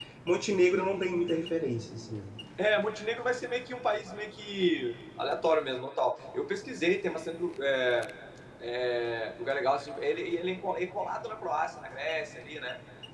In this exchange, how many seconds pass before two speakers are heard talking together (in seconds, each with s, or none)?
none